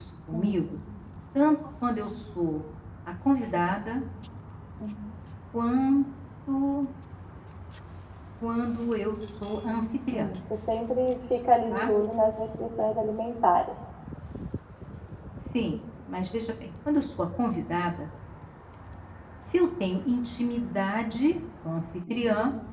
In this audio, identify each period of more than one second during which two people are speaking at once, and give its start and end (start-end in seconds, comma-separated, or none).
none